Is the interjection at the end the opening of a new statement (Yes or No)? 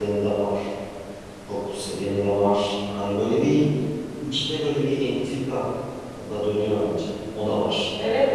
Yes